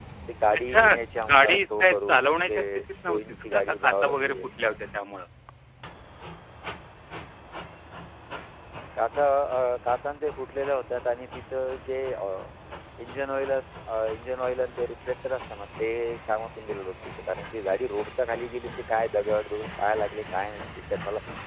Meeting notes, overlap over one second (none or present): present